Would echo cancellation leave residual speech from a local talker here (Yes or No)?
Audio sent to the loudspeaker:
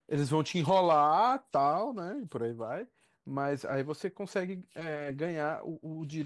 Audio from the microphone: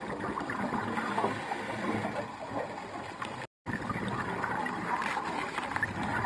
No